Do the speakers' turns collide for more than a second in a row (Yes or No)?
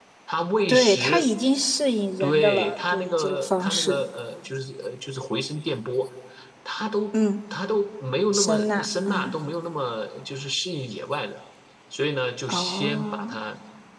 Yes